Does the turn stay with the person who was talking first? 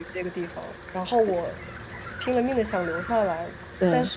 Yes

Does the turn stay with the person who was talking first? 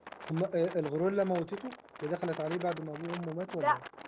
No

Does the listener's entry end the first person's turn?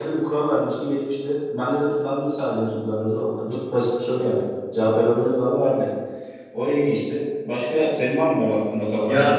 Yes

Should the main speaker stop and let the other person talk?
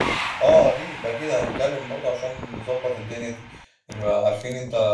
No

